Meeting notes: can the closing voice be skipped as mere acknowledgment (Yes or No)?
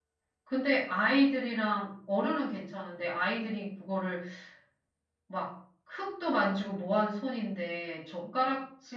Yes